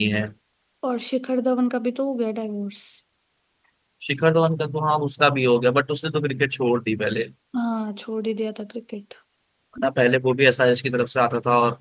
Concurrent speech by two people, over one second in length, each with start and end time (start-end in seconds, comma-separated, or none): none